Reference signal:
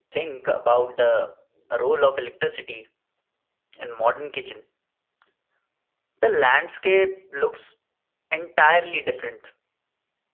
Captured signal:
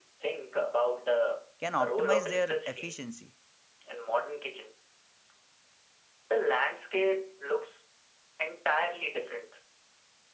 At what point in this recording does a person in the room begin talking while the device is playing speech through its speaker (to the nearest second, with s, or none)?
2 s